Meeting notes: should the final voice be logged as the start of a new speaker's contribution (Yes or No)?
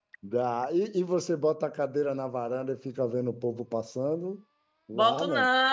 Yes